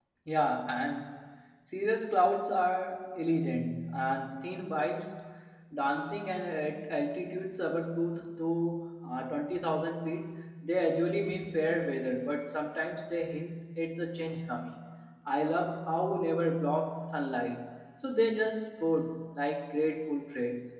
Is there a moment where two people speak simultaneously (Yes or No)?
No